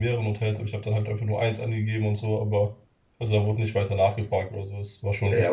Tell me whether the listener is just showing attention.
No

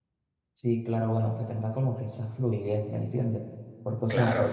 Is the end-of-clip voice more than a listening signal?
No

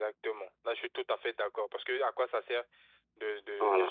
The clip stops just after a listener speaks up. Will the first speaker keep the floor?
Yes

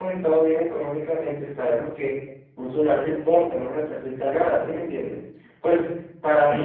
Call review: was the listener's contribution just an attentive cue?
Yes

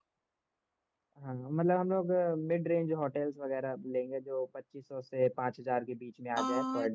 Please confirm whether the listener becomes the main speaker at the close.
Yes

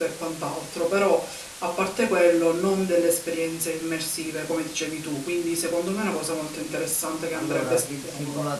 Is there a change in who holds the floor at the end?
Yes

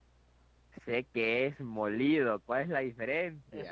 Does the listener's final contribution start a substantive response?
Yes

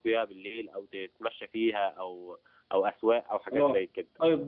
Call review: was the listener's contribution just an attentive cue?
No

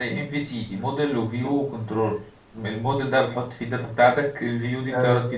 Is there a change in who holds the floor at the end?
No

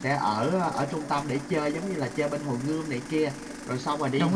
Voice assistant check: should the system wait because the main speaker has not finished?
Yes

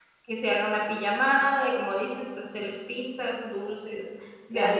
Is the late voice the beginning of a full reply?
Yes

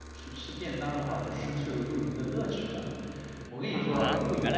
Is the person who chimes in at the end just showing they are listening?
No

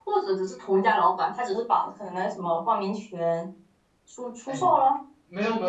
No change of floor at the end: No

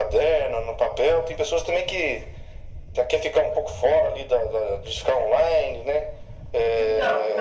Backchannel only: Yes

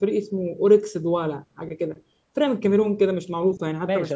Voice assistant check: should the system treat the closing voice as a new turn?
Yes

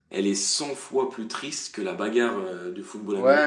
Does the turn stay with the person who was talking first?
No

